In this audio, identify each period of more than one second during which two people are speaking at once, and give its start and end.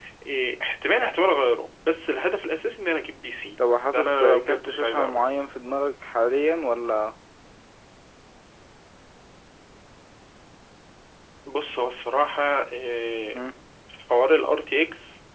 3.9-5.3

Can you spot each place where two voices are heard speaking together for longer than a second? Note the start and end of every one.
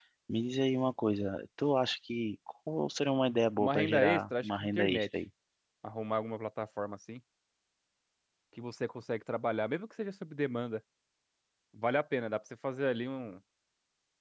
3.6-5.1

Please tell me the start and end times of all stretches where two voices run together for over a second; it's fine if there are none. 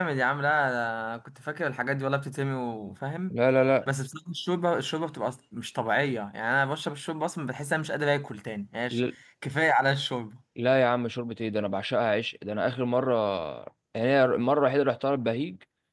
none

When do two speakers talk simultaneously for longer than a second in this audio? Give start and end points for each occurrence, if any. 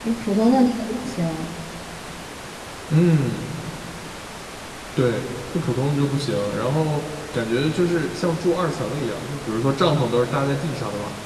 none

